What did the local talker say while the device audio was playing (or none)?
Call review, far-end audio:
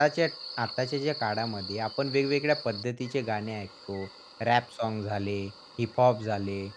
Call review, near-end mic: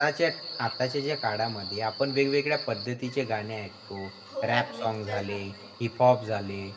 हो, मिक्सचर झालं आहे.